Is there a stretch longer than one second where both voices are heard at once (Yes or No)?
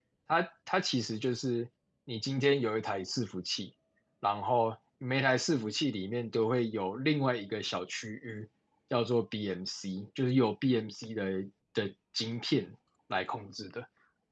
No